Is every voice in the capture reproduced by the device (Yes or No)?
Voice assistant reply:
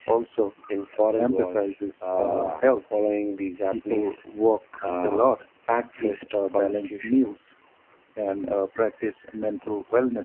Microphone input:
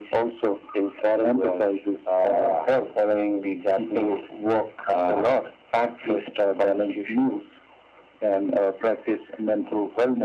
Yes